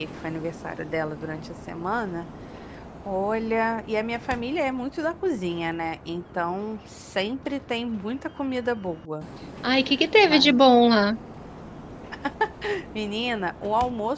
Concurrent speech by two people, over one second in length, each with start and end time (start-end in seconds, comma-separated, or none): none